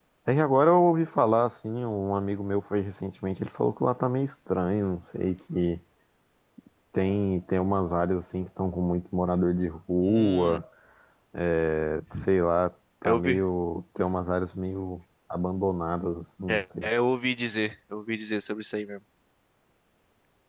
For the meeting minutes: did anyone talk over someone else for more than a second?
No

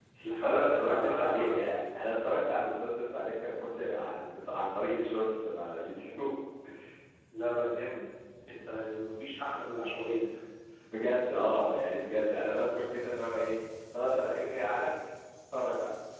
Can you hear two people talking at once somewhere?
Yes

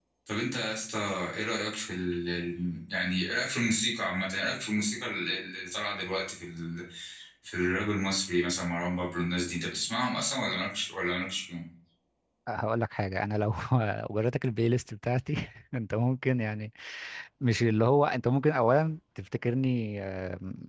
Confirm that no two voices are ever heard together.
Yes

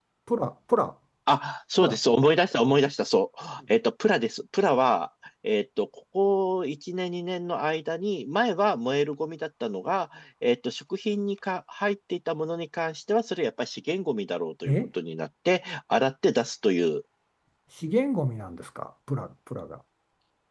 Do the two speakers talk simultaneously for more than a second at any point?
No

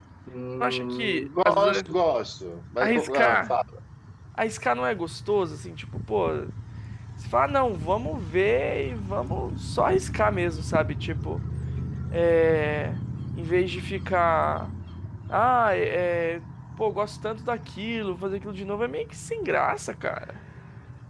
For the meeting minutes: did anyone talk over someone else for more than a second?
Yes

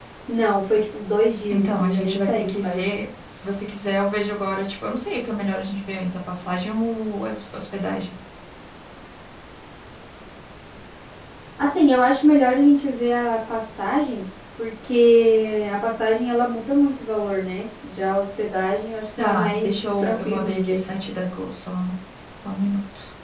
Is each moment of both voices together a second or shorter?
No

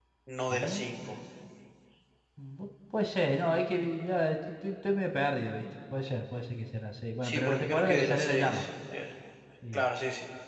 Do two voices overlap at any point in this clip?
Yes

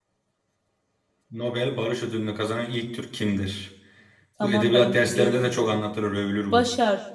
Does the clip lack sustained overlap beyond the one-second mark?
No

